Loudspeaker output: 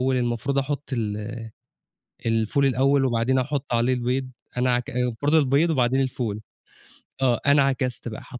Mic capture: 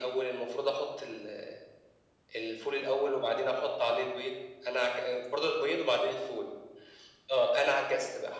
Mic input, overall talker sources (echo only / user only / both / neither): echo only